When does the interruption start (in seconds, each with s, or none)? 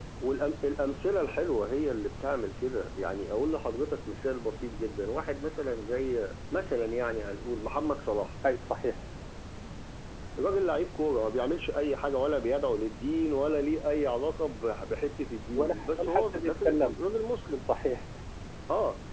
15.6 s